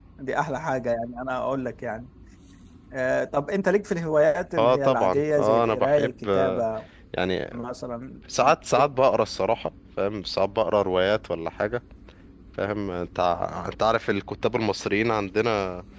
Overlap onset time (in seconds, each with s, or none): 4.6 s